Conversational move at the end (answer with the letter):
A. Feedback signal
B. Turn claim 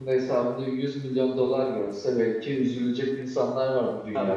B